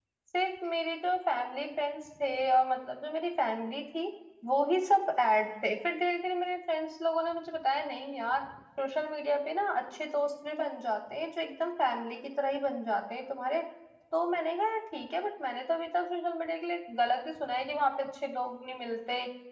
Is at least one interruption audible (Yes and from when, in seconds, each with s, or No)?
No